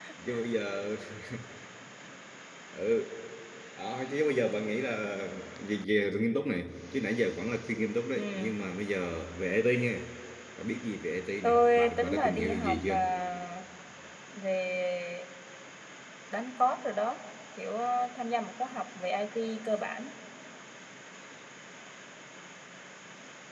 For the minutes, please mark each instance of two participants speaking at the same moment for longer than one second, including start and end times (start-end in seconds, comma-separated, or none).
11.4-13.0